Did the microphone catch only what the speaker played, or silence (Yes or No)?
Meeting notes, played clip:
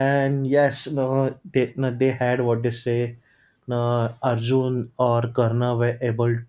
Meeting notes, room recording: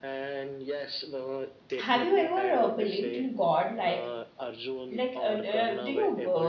No